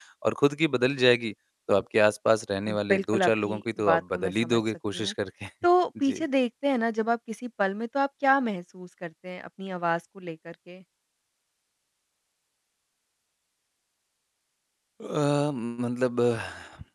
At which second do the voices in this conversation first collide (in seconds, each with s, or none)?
2.7 s